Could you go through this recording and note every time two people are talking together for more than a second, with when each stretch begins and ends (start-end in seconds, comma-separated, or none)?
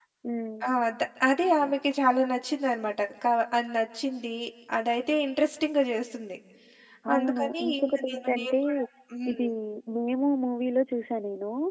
7.2-8.6